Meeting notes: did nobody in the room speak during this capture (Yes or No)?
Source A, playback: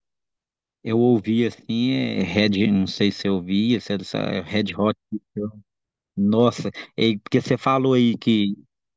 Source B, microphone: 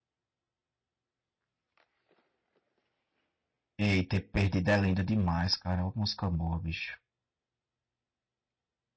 No